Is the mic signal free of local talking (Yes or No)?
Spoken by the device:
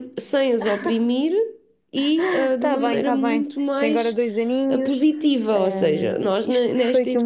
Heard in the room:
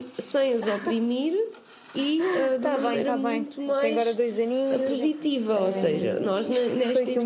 No